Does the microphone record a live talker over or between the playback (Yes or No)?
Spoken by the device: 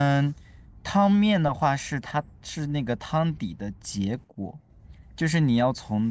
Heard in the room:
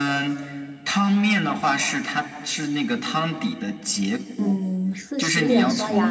Yes